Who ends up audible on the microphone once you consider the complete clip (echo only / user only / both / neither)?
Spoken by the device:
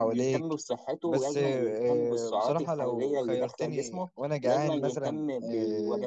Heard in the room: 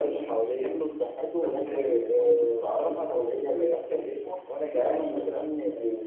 echo only